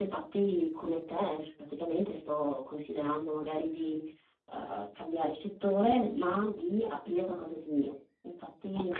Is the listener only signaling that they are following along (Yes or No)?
Yes